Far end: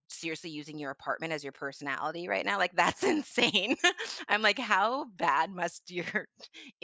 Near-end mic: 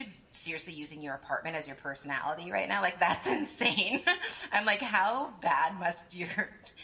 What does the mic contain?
echo only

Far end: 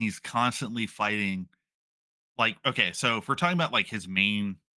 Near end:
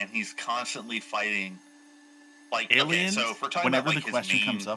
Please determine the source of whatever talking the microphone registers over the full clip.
both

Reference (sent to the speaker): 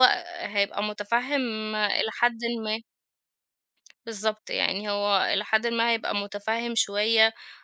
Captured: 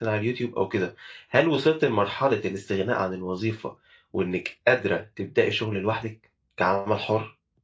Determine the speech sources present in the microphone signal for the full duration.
user only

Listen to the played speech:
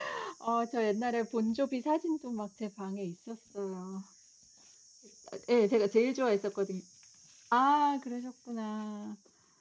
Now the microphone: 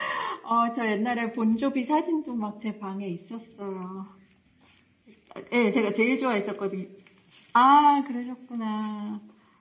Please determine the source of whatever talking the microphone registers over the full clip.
echo only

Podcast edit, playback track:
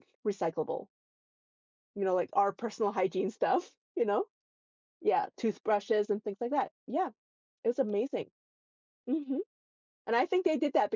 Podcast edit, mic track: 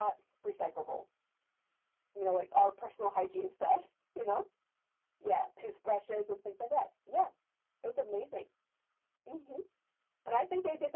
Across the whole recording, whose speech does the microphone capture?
echo only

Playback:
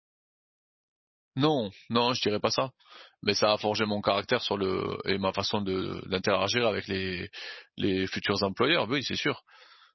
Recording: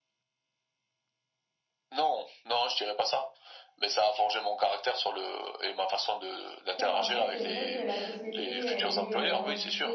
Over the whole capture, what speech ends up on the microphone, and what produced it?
both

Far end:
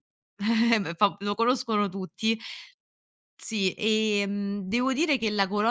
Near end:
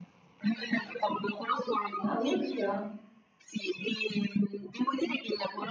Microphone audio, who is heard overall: both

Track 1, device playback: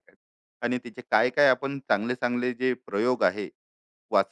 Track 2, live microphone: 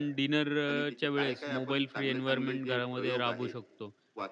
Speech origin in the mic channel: both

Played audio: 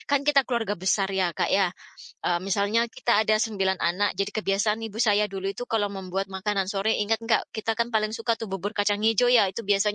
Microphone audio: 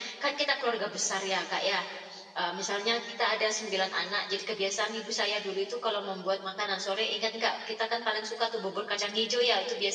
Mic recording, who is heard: echo only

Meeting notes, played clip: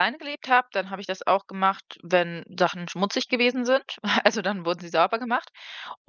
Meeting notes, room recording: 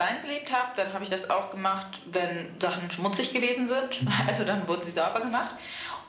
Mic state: both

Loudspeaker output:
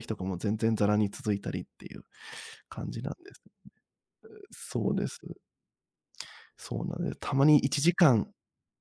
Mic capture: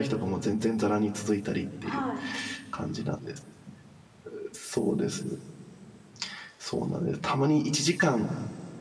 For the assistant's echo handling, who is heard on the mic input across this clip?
both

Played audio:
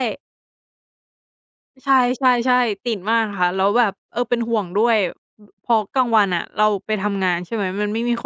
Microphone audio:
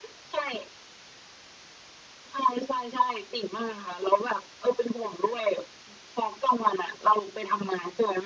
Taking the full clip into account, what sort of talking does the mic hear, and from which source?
echo only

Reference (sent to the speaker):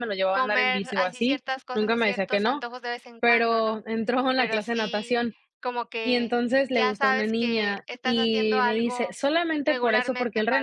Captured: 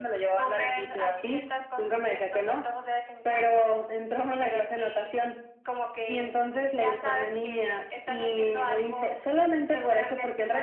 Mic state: echo only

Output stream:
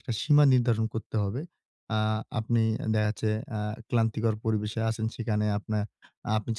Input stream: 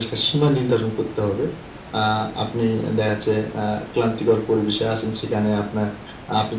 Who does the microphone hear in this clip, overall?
echo only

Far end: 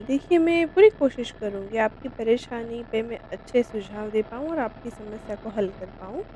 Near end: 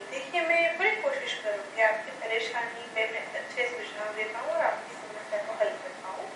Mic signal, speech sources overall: echo only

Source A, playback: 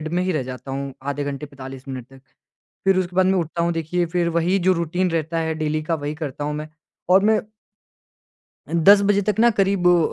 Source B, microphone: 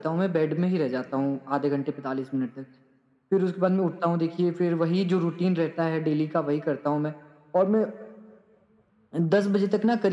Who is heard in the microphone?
echo only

